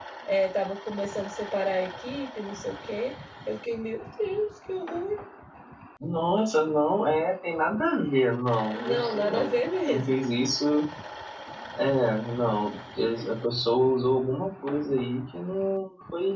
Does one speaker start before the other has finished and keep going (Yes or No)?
Yes